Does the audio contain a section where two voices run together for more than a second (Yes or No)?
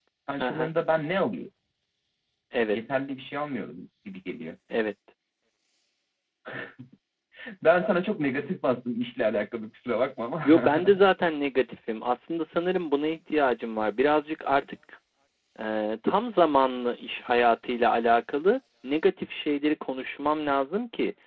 No